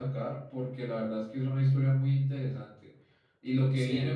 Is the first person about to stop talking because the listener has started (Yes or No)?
No